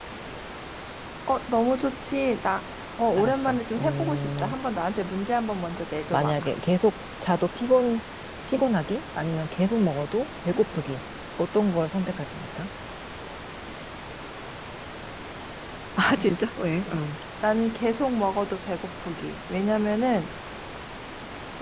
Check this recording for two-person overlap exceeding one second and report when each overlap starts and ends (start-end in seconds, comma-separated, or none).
3.2-4.5